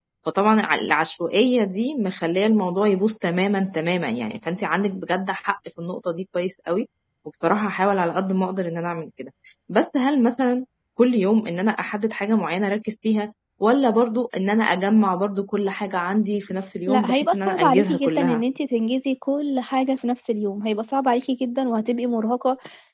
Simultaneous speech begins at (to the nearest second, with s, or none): 17 s